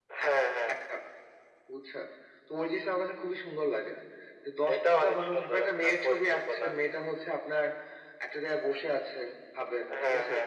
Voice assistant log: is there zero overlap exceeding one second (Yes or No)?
No